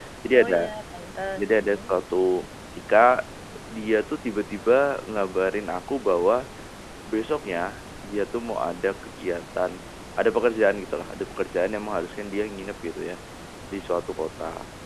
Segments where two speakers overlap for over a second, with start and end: none

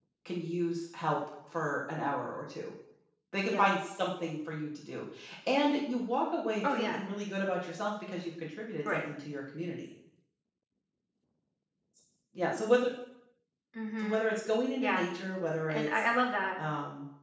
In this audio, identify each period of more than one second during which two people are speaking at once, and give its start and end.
none

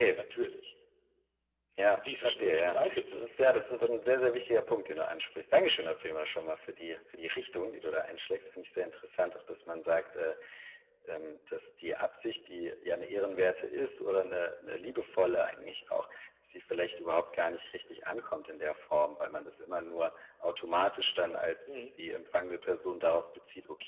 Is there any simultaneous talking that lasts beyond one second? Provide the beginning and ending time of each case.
2.0-3.3

